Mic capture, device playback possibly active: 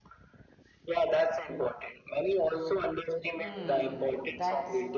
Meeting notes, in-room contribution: present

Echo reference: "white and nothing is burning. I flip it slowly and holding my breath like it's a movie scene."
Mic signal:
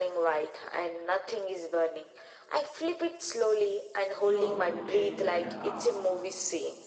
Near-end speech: present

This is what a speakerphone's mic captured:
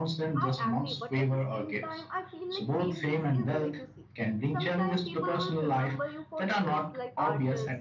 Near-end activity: present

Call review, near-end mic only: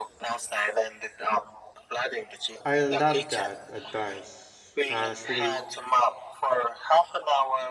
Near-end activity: present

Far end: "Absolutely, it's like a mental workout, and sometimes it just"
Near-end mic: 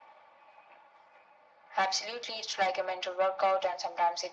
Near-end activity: none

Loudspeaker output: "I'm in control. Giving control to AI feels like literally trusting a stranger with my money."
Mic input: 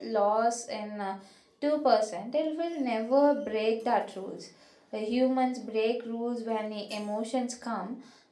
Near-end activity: present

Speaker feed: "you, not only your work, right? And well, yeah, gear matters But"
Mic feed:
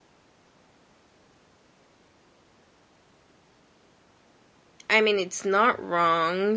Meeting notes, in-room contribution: present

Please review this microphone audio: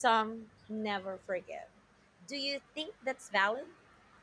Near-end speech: present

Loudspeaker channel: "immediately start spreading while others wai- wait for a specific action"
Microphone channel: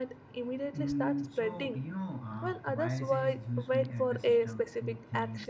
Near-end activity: present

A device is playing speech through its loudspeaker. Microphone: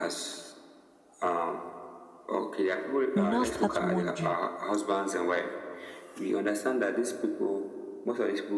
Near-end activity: present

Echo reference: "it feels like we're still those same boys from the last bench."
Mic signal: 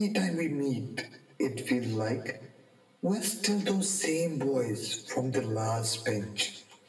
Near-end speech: none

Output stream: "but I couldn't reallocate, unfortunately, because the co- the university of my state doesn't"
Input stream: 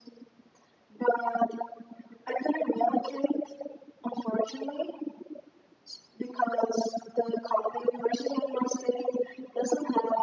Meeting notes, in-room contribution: none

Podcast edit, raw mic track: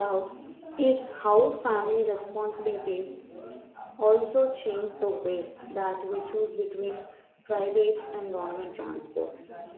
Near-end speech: present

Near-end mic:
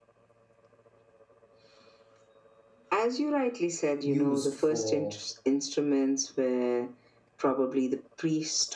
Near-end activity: present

